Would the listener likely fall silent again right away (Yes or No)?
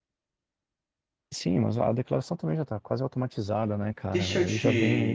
No